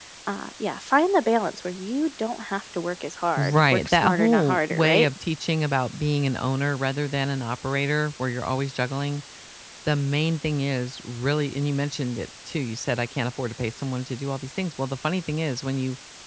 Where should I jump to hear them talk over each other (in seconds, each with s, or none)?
3.4 s